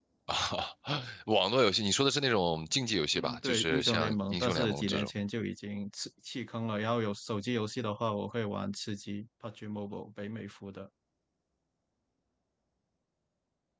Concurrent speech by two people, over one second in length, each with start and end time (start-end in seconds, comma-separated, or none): 3.1-5.1